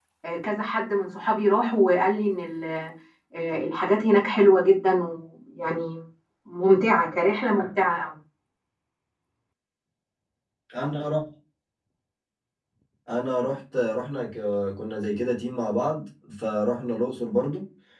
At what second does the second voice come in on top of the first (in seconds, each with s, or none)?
none